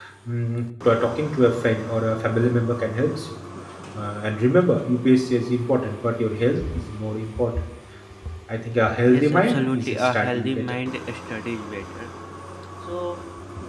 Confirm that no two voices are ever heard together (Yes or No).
No